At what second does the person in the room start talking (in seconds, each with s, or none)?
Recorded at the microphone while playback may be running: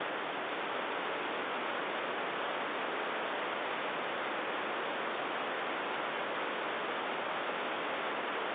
none